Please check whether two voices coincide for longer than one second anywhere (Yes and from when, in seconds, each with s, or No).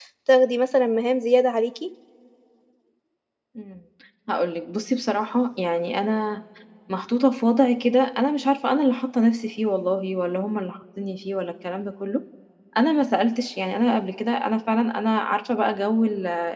No